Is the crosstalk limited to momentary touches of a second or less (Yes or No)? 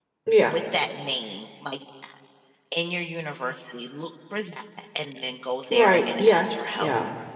No